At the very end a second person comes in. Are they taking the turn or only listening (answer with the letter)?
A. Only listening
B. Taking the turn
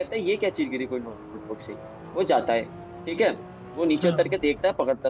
A